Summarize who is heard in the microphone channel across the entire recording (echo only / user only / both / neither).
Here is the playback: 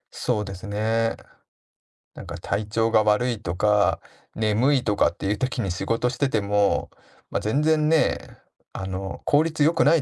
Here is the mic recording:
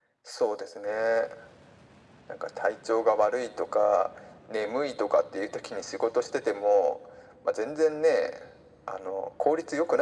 echo only